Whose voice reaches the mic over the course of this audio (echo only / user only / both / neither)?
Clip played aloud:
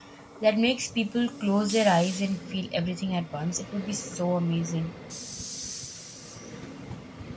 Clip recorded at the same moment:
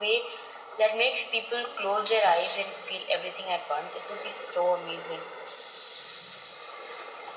echo only